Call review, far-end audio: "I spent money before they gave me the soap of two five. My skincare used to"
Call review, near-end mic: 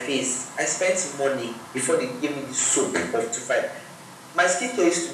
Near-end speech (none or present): none